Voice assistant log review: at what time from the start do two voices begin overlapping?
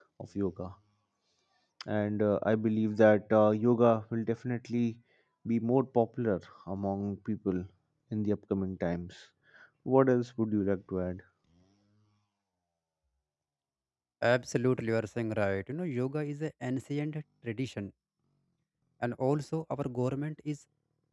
none

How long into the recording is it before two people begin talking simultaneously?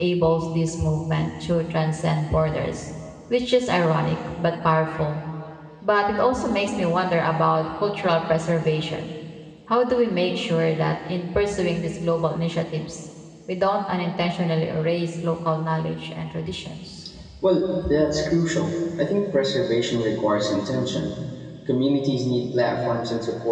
none

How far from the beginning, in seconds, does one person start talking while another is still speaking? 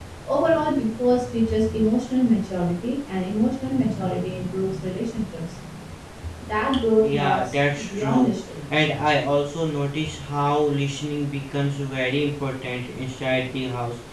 7.0 s

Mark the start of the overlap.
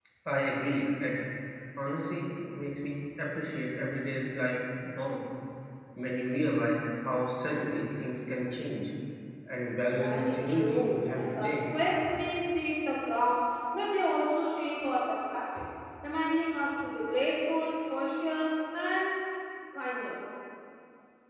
10.0 s

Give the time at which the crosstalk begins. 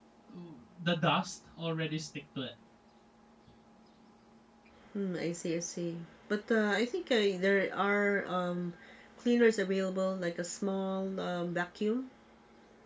none

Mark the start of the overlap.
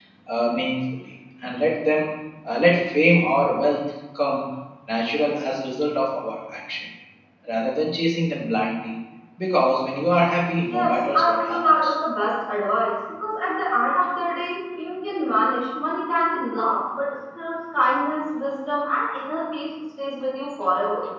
10.7 s

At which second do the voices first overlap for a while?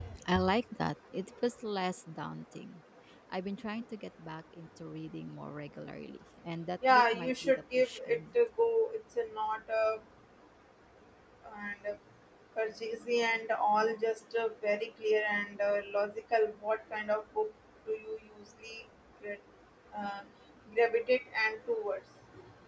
6.8 s

